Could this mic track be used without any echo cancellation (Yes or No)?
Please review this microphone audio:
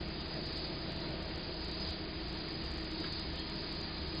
Yes